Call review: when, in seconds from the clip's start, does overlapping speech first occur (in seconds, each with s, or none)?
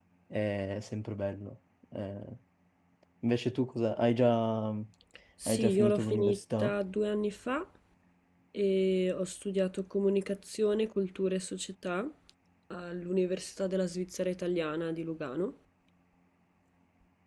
5.4 s